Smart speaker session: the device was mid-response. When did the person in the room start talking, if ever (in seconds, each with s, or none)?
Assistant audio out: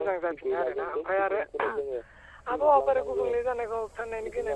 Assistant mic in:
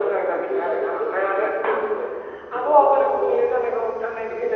none